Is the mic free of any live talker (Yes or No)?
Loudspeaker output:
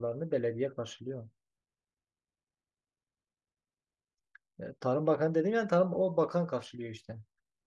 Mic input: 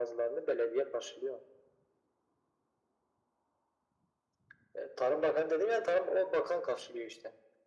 Yes